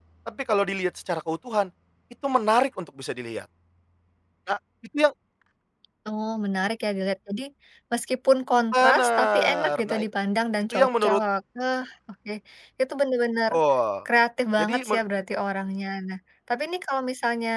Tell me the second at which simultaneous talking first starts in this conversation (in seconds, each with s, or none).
8.7 s